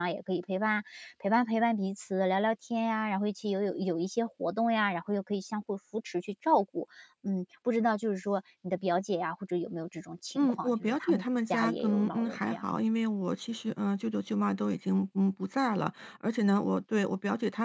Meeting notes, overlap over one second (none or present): present